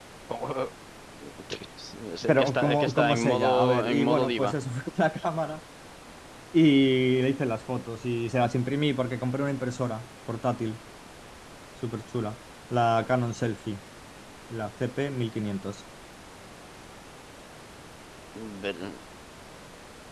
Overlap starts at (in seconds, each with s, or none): 2.3 s